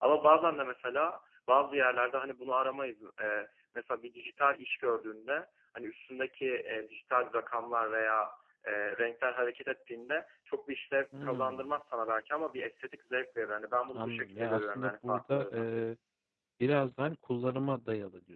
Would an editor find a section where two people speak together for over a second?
Yes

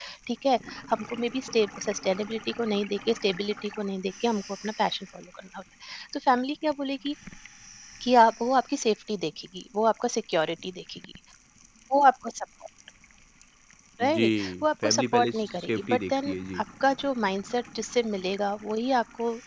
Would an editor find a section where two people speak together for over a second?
Yes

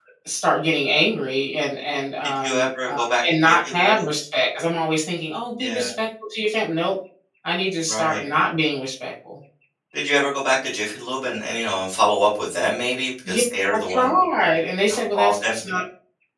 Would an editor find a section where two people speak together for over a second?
Yes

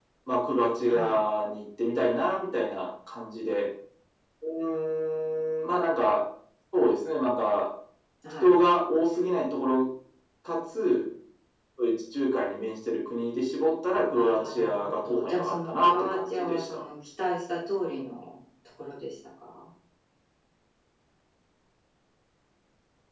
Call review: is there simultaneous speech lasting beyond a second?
Yes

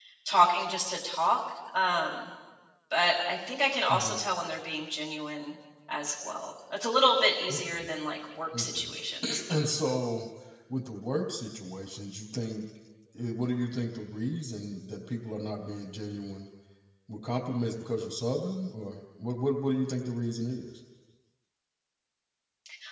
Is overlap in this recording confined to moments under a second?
Yes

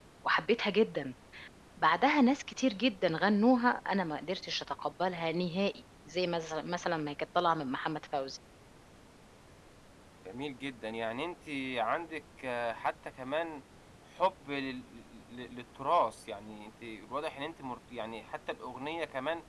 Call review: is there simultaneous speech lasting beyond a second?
No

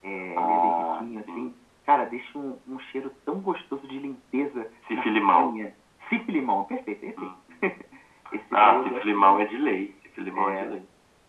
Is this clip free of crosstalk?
No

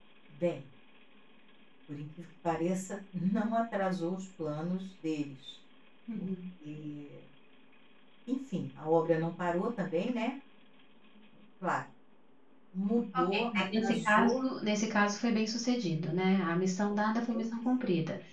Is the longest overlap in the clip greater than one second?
Yes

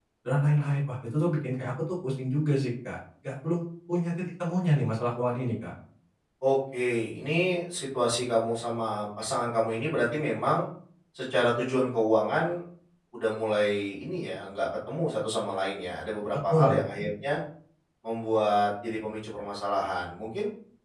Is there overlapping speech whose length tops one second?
No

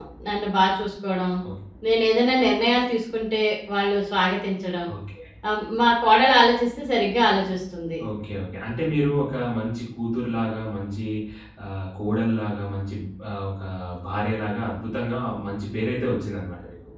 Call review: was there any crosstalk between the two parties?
No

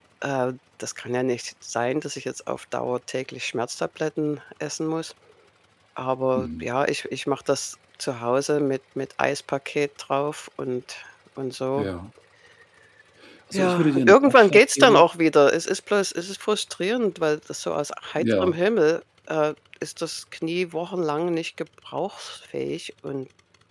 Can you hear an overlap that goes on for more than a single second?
Yes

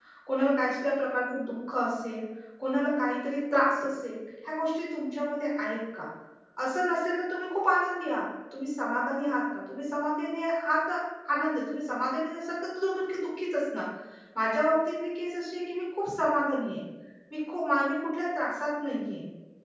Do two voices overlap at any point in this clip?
No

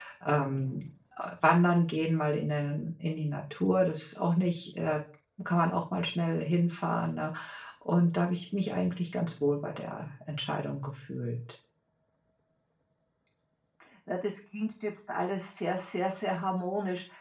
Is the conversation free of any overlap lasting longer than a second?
Yes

